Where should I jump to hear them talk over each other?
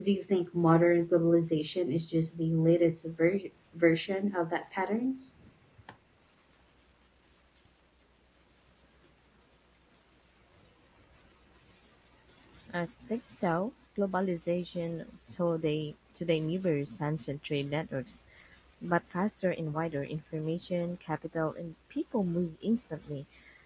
none

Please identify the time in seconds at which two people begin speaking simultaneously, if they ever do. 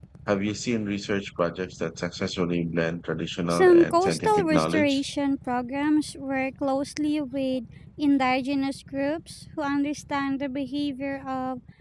3.5 s

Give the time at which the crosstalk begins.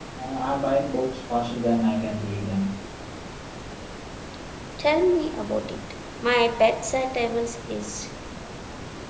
none

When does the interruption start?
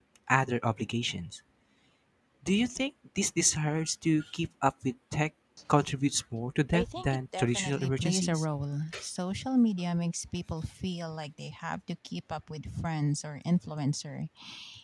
6.7 s

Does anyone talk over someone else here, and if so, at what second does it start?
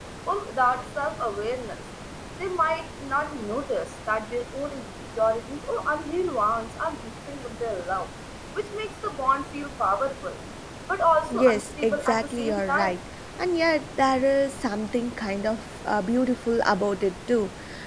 11.3 s

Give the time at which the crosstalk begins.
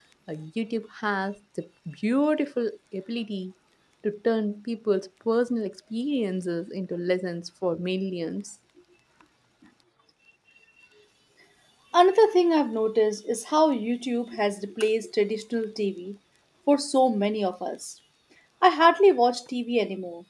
none

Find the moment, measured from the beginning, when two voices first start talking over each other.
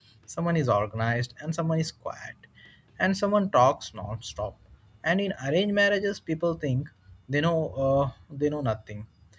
none

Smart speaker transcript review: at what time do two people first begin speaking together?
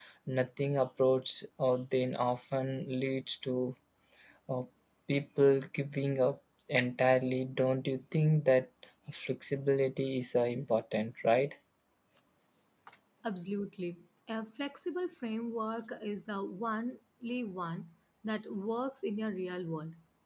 none

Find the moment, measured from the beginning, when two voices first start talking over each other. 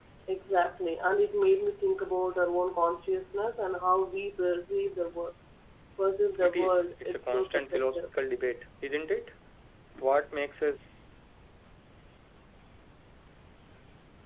6.4 s

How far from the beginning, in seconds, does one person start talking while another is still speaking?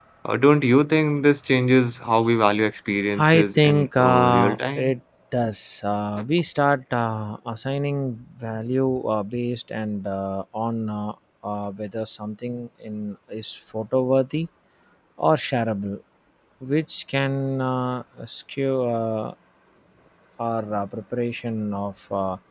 3.2 s

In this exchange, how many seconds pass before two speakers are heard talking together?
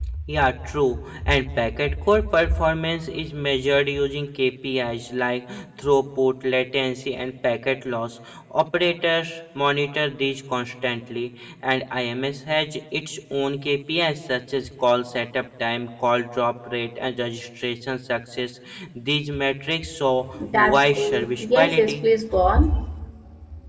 20.4 s

